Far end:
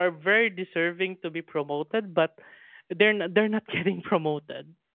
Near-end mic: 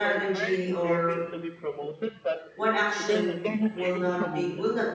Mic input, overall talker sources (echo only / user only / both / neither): both